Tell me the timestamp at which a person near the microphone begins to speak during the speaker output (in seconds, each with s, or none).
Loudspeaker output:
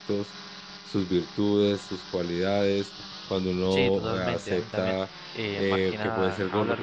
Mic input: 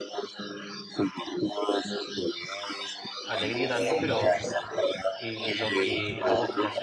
3.2 s